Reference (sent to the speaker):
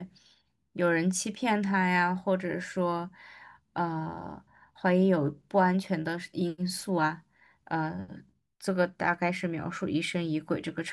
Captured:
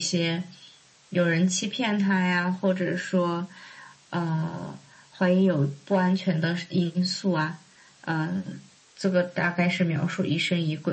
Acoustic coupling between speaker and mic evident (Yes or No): Yes